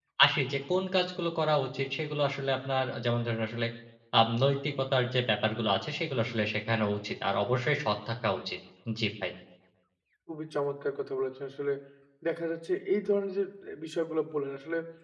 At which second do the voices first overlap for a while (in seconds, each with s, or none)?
none